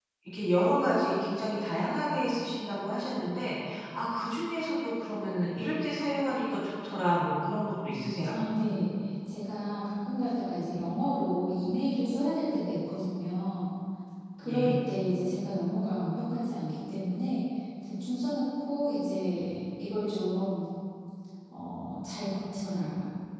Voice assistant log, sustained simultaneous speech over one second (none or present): none